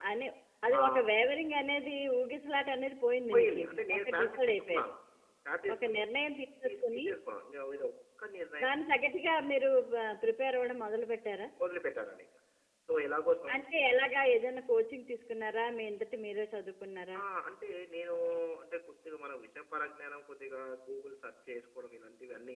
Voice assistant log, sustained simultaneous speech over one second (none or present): present